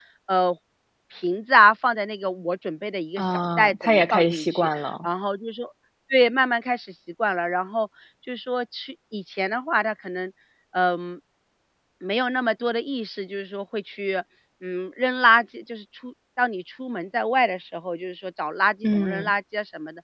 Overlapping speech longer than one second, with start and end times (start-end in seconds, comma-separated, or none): 3.2-5.1